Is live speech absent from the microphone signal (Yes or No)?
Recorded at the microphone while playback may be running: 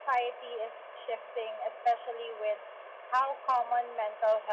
Yes